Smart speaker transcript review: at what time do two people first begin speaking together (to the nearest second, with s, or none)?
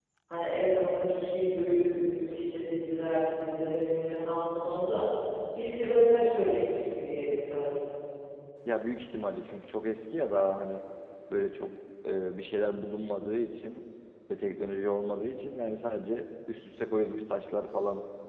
none